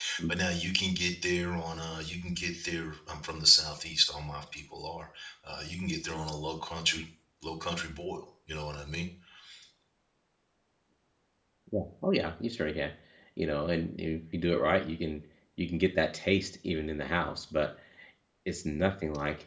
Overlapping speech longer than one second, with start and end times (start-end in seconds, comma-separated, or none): none